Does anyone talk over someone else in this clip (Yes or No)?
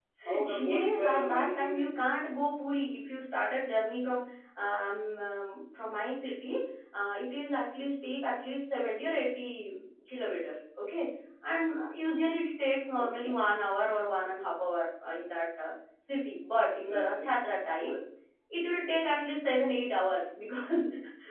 Yes